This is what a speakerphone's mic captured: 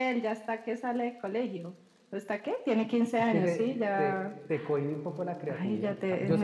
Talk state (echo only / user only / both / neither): both